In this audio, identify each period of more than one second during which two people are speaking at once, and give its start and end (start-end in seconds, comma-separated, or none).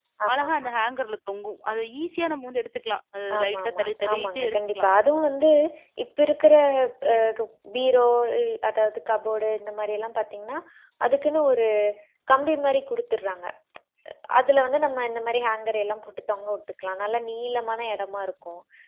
3.4-4.9